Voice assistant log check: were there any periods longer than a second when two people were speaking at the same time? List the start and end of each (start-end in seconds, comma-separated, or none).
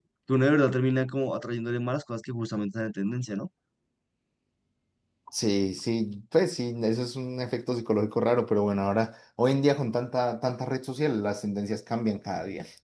none